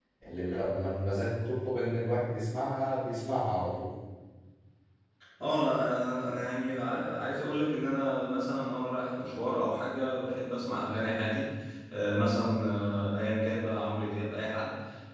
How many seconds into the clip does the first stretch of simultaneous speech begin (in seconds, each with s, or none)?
none